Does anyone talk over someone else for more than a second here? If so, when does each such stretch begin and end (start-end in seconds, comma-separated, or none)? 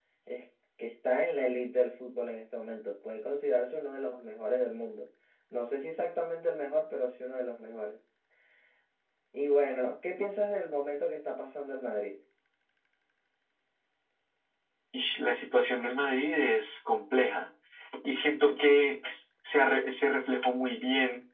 none